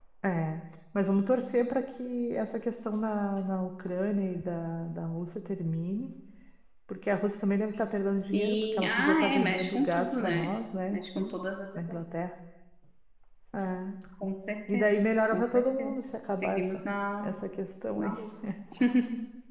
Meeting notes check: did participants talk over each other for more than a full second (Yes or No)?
Yes